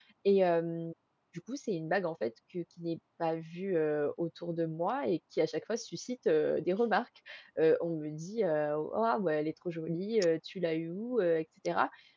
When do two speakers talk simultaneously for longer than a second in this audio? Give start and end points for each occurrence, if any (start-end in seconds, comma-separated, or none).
none